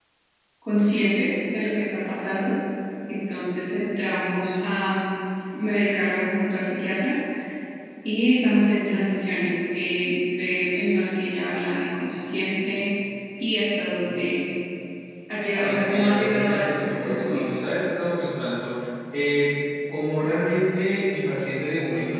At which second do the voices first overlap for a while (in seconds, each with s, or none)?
15.6 s